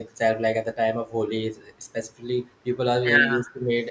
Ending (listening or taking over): listening